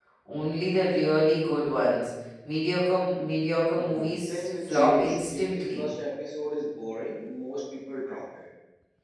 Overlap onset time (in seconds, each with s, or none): 3.8 s